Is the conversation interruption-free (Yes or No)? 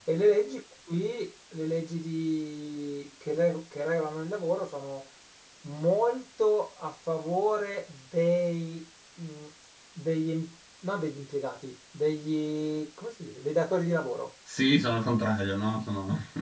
Yes